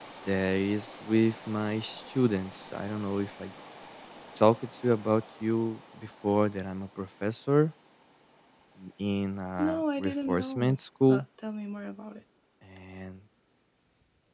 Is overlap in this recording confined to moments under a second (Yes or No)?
No